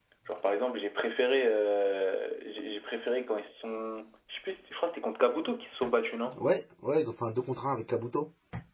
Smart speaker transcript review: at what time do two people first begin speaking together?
none

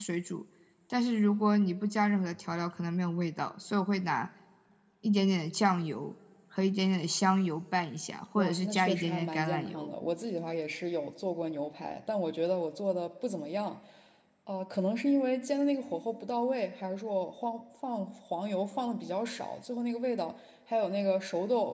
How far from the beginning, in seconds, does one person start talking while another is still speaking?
8.3 s

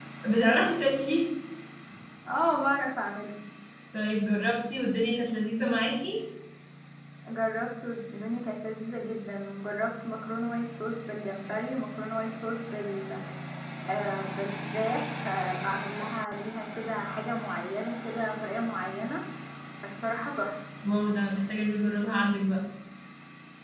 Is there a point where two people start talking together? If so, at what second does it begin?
none

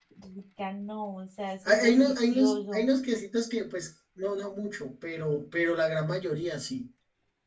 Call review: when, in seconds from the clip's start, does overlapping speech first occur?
1.6 s

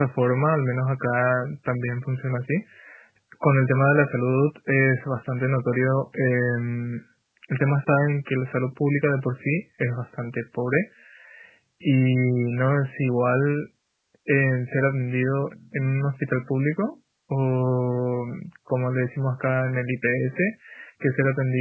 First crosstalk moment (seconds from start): none

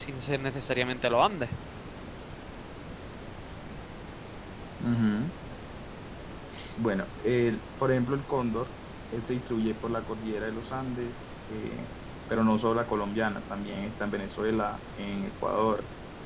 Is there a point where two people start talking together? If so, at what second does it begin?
none

